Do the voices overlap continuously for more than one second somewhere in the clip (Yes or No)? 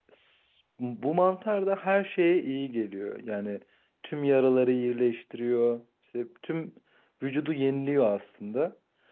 No